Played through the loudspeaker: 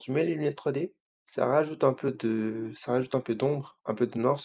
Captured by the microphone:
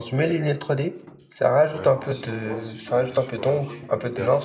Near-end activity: present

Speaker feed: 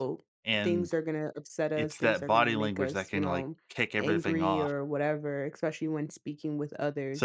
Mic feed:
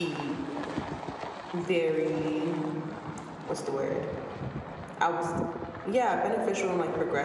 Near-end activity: present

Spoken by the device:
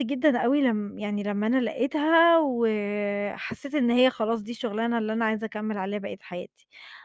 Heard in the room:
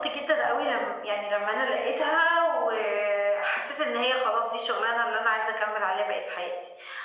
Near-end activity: none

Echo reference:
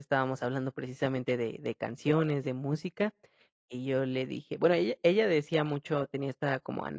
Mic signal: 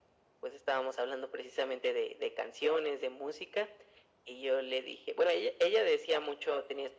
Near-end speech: none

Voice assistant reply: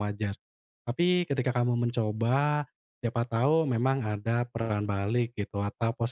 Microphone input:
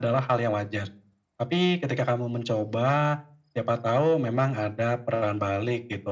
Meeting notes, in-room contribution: none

